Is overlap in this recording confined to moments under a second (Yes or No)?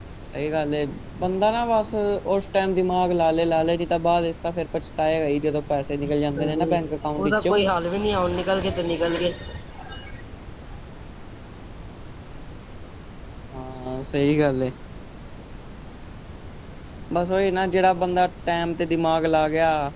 No